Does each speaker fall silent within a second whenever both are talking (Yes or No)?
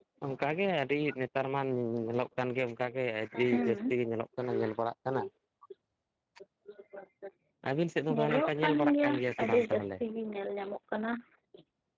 No